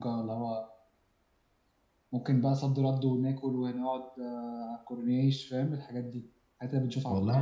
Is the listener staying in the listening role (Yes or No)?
No